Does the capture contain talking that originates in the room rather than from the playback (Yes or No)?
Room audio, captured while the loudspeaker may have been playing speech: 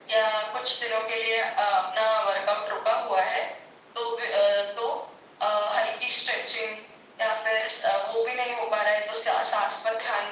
No